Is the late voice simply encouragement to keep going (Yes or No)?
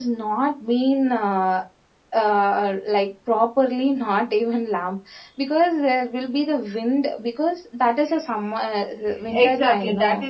No